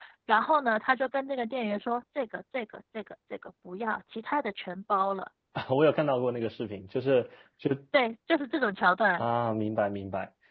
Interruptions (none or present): none